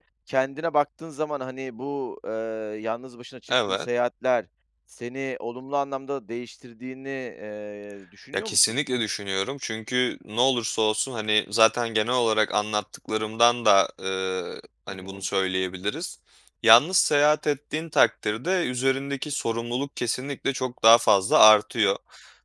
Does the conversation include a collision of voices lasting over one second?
No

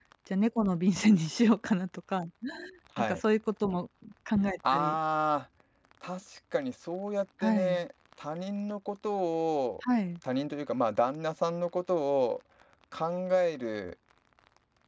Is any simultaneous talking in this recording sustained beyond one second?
No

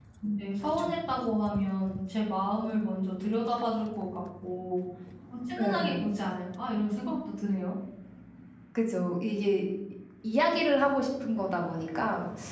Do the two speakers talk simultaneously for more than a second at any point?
No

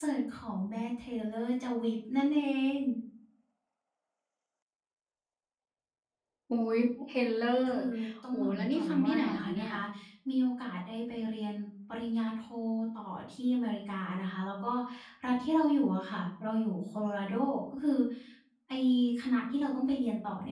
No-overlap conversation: No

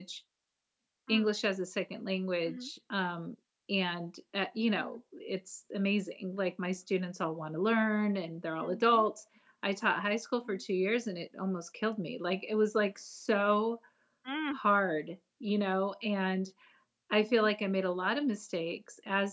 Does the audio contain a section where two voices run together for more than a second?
No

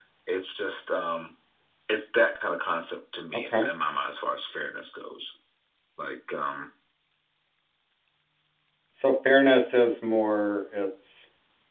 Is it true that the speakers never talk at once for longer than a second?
Yes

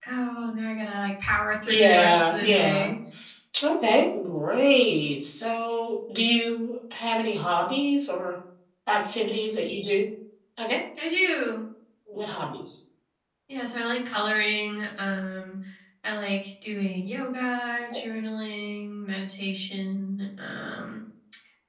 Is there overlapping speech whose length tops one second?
Yes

